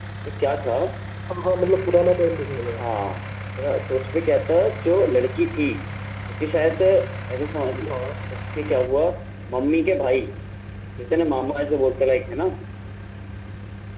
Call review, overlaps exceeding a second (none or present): none